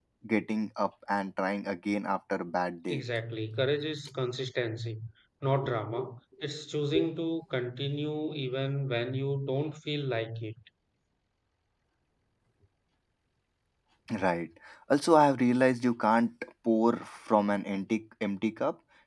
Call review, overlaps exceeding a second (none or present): none